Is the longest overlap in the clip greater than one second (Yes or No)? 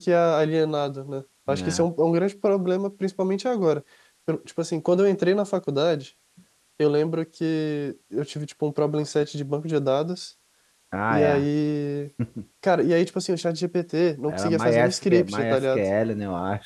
Yes